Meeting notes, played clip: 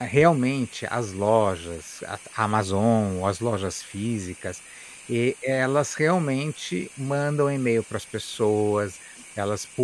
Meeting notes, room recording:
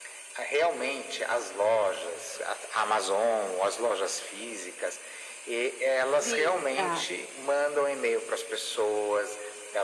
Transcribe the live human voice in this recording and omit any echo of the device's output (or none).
Sim, tá.